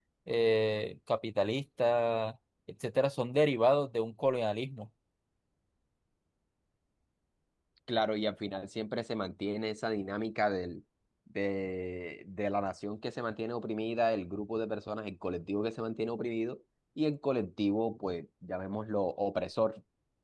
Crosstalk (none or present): none